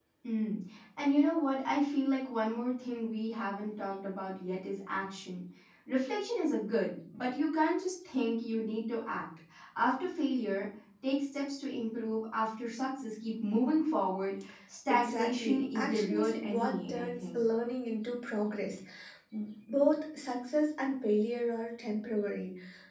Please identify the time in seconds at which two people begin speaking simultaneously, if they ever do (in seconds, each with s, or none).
14.9 s